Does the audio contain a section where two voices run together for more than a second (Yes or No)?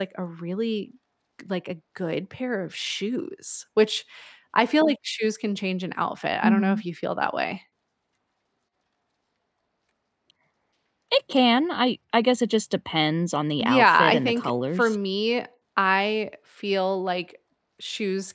Yes